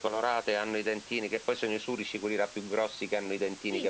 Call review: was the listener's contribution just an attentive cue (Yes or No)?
No